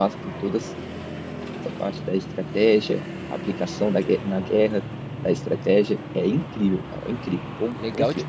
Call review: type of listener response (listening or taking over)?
taking over